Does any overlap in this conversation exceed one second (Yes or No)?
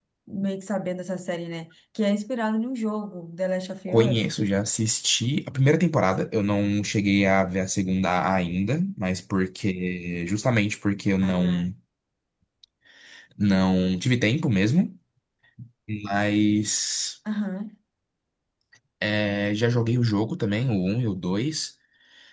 No